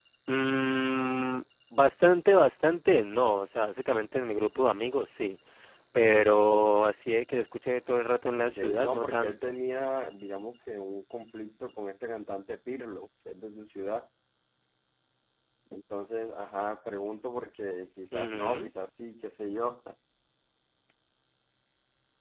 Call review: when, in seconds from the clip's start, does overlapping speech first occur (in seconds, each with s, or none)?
8.4 s